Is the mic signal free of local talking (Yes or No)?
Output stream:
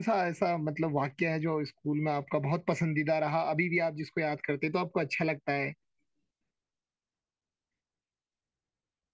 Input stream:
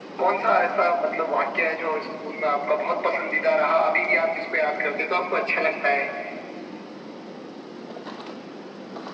Yes